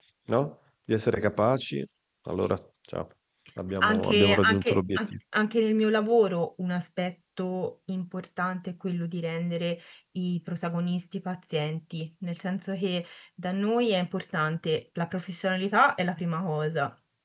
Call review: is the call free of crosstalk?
No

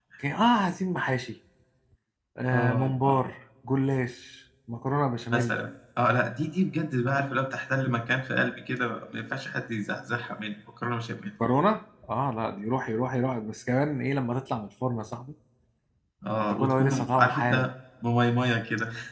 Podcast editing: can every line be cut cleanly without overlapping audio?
No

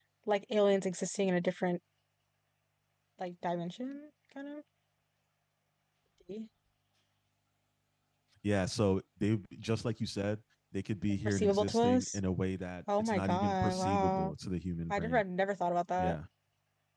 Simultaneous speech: Yes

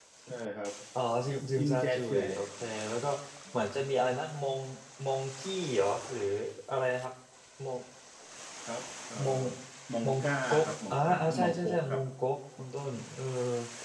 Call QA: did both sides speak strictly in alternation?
No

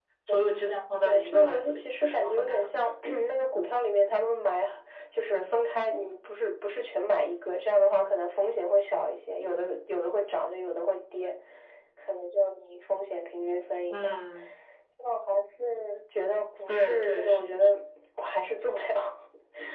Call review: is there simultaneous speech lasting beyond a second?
Yes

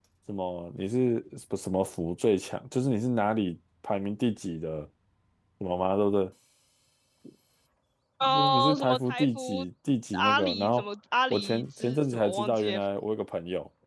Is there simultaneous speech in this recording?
Yes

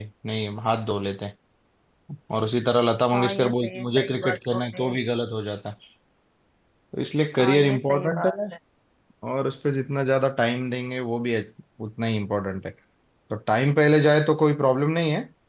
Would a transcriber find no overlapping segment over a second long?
No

